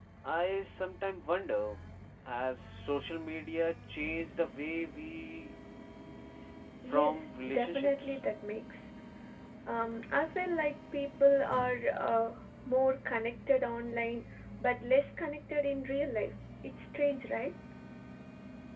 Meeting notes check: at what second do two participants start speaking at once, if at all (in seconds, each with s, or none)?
6.9 s